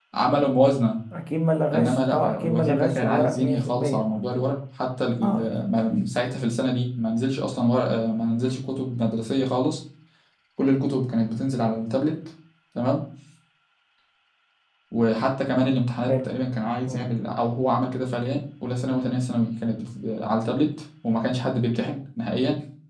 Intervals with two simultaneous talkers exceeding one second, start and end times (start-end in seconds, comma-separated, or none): 1.7-4.1